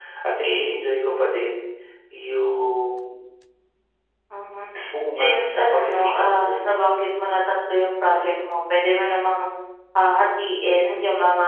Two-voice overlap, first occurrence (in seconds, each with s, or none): 5.2 s